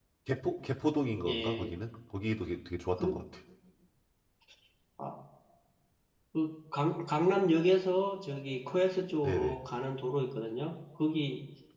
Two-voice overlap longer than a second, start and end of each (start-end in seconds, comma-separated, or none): none